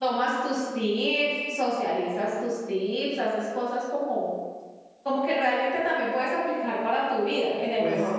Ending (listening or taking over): taking over